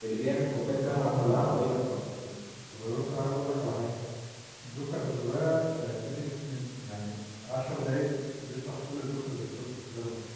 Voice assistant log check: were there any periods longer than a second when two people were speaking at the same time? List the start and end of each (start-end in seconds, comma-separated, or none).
0.5-1.8